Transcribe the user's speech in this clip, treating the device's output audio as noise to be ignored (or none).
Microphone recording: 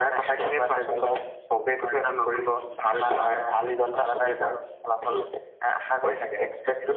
none